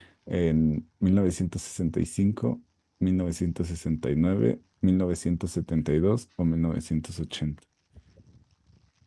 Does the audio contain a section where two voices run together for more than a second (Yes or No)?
No